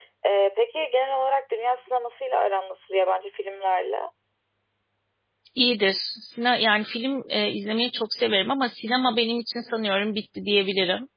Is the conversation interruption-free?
Yes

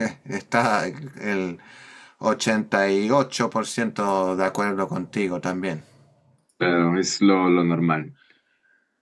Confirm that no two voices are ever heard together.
Yes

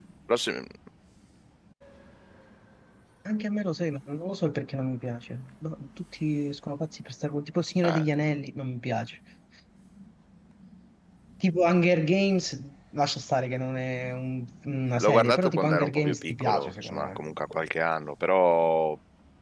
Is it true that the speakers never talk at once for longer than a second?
No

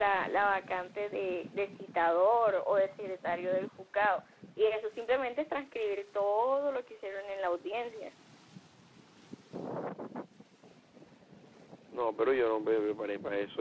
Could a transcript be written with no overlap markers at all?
Yes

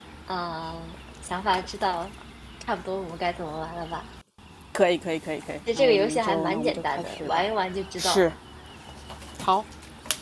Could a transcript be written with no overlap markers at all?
No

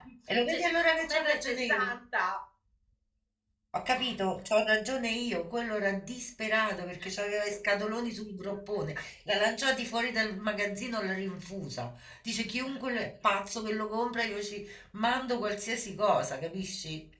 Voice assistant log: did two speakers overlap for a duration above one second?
Yes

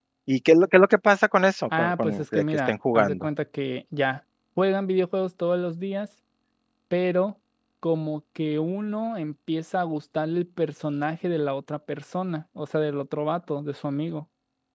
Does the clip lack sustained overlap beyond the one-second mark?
No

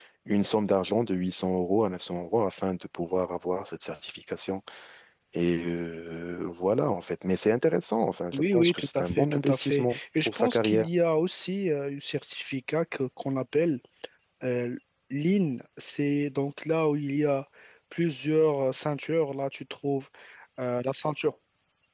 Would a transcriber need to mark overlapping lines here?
Yes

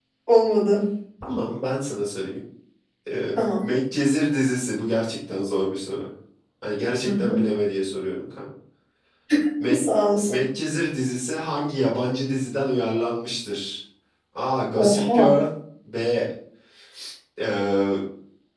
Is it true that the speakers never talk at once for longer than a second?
Yes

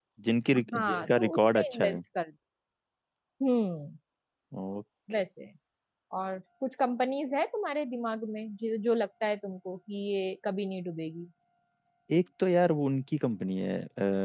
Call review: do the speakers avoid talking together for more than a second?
No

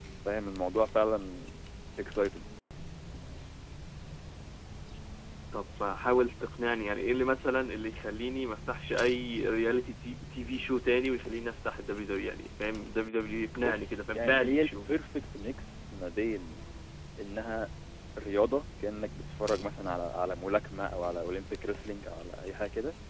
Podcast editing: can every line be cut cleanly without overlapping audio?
No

